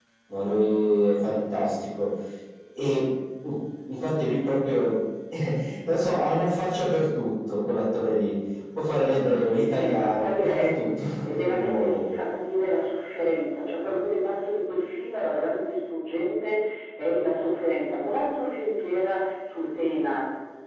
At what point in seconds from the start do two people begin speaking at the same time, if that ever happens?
9.5 s

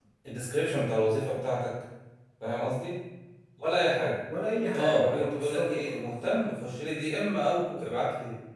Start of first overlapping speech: 4.8 s

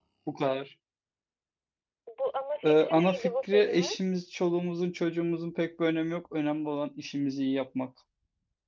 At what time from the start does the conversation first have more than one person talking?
2.6 s

